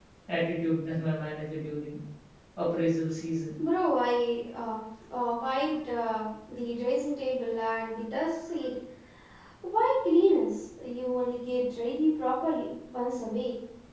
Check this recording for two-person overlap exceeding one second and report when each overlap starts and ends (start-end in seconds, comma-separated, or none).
none